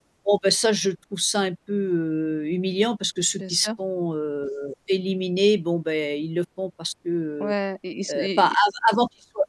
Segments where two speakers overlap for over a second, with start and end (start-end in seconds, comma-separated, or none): none